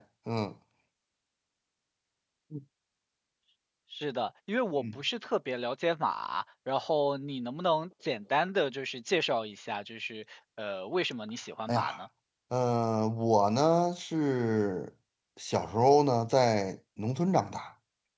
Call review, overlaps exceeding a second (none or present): none